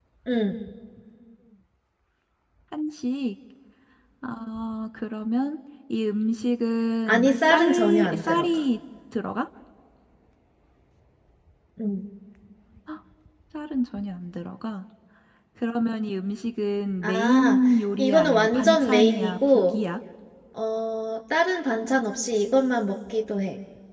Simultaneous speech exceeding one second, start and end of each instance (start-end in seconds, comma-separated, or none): 7.1-8.5, 18.0-19.7